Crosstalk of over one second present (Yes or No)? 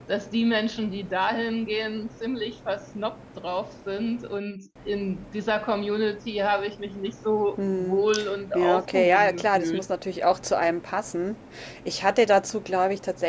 Yes